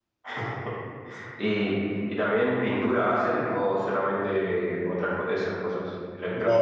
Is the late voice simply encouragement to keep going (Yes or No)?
No